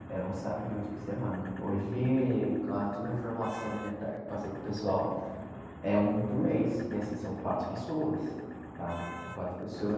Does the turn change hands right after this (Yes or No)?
Yes